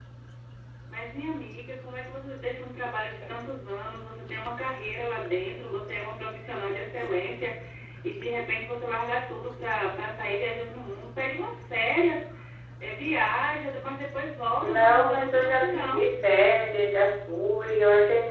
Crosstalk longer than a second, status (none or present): present